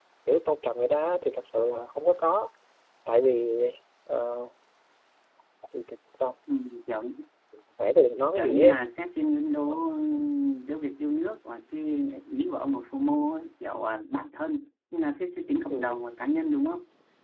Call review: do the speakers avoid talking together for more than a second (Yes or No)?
Yes